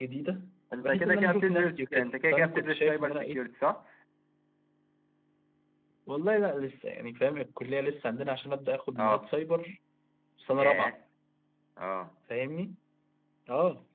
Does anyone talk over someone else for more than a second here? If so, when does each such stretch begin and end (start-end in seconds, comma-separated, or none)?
0.8-3.4